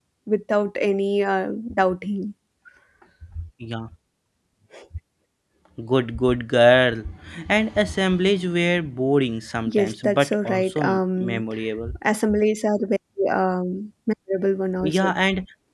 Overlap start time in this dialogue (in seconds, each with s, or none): 9.7 s